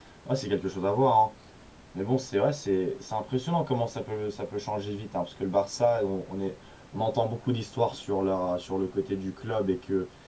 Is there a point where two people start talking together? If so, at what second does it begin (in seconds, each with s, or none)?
none